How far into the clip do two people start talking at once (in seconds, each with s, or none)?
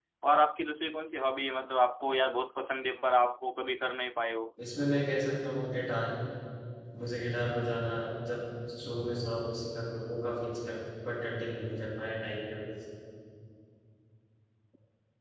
none